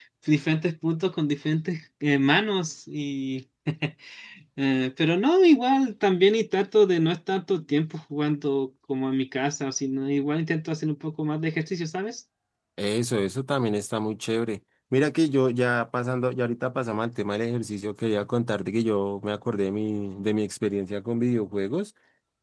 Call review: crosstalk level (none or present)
none